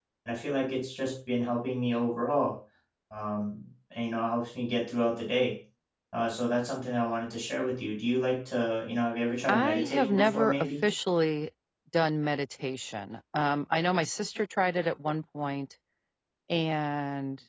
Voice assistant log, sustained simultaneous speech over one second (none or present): present